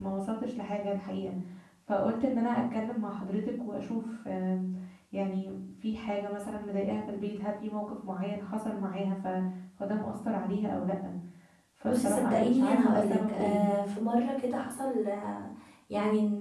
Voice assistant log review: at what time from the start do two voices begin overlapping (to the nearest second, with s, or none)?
12 s